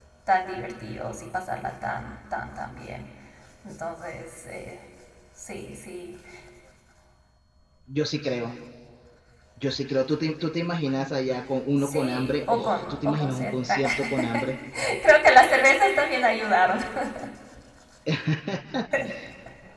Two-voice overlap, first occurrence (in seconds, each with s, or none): 11.8 s